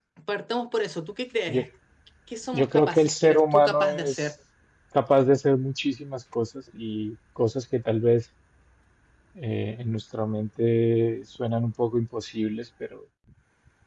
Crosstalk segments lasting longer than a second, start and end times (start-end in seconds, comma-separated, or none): 2.5-4.3